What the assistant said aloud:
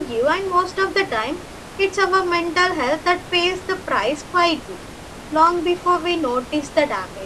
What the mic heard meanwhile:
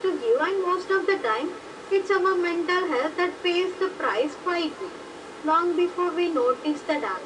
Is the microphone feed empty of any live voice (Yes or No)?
Yes